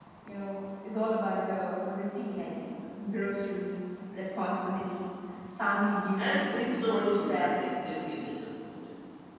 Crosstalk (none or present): present